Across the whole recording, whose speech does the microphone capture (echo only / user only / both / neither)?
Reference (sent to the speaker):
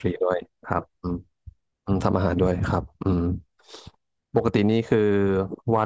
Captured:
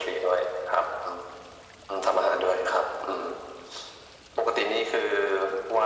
echo only